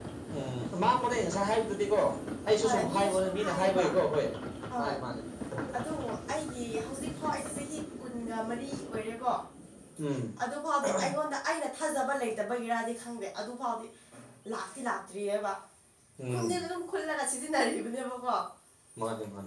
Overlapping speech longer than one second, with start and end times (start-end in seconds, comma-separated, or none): 2.6-3.9